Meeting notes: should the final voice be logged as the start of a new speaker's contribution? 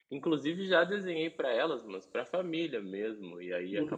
No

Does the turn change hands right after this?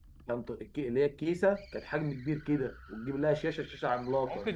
Yes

